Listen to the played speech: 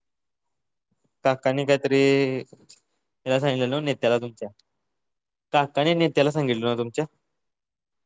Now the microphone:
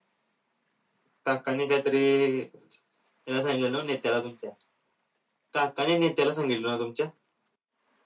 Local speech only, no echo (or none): none